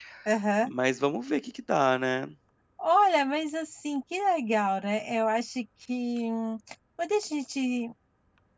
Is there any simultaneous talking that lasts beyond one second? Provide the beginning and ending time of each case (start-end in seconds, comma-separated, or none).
none